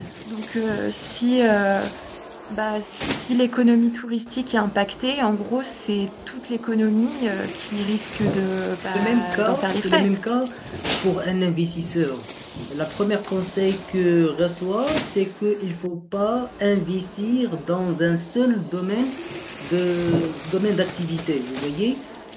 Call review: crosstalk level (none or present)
present